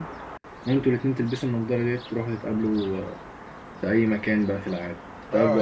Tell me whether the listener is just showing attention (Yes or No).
No